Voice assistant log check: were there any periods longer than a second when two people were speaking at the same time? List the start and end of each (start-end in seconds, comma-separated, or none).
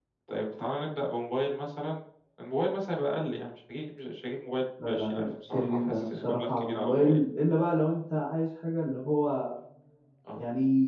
4.8-7.2